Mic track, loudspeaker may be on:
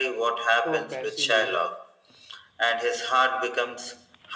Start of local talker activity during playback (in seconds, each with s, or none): 0.6 s